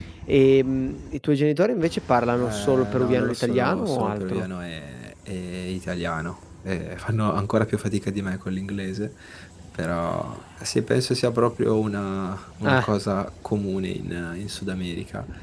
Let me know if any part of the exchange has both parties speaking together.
Yes, from 2.4 s

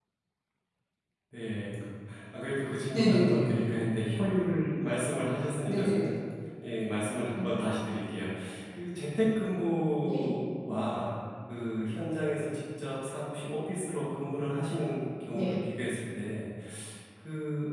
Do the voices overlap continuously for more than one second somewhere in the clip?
No

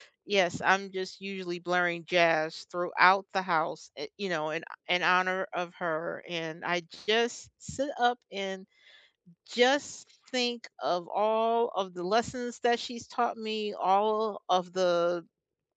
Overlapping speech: No

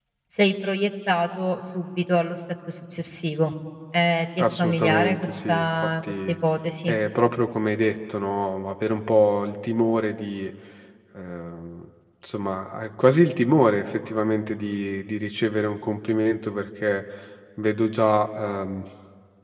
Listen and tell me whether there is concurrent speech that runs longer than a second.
Yes, from 4.4 s

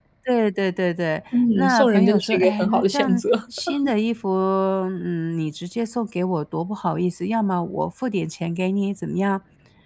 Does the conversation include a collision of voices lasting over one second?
Yes, from 1.3 s

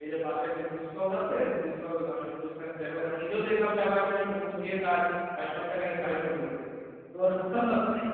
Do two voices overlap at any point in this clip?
No

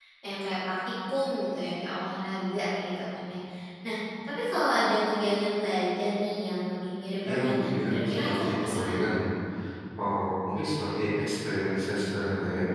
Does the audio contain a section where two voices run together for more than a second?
Yes, from 7.2 s

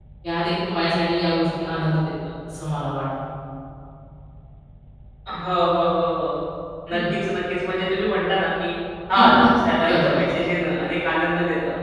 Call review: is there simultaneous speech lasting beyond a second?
No

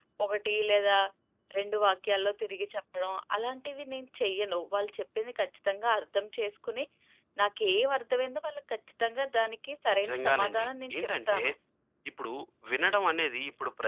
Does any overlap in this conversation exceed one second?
Yes, from 9.9 s

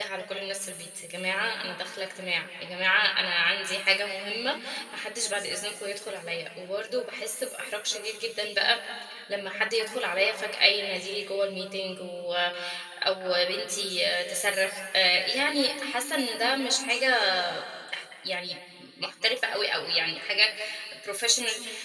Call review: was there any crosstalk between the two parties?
No

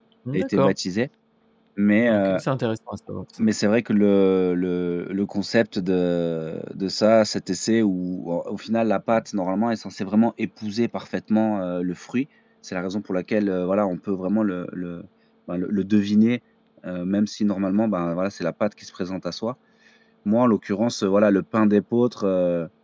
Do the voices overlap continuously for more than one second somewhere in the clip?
No

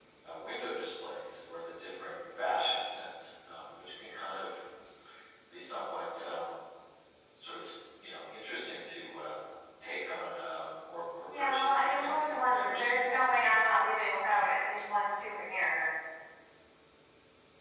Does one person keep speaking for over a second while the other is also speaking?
Yes, from 11.3 s

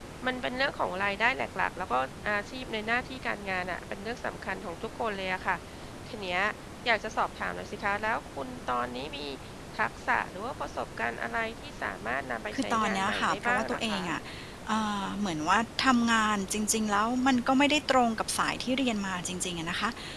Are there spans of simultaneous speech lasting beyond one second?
Yes, from 12.5 s

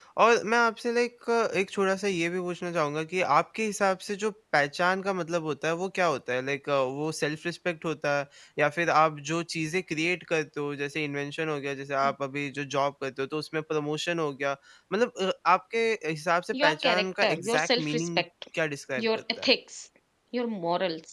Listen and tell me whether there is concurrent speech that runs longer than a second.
Yes, from 16.6 s

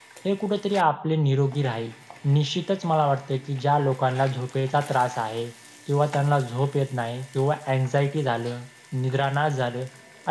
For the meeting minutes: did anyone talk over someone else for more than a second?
No

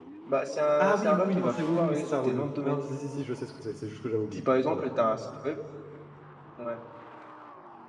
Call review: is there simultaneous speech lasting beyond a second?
Yes, from 0.8 s

